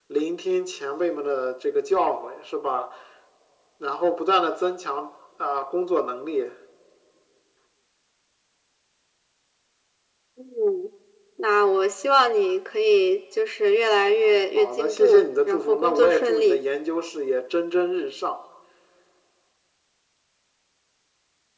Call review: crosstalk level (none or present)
present